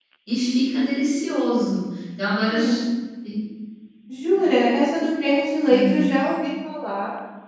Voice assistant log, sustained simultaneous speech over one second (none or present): none